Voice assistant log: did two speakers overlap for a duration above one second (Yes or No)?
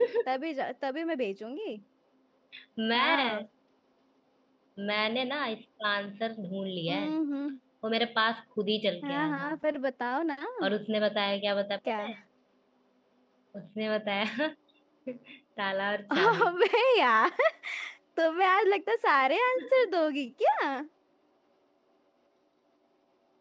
No